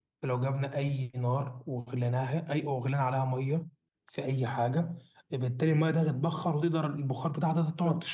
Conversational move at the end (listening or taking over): taking over